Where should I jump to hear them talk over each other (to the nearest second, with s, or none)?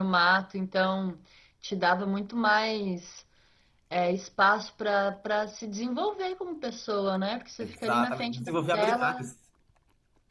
8 s